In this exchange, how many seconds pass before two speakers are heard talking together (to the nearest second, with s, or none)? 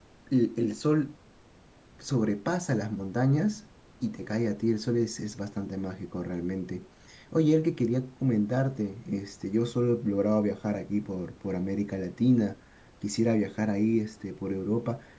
none